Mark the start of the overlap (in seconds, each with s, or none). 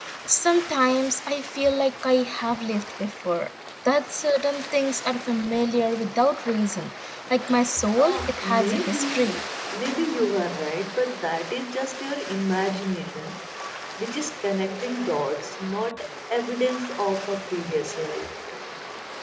7.8 s